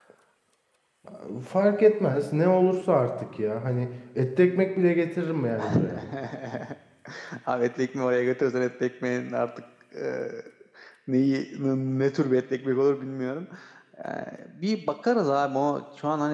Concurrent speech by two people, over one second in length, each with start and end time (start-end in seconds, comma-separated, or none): none